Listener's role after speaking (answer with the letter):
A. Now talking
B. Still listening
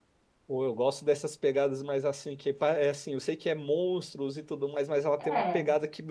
B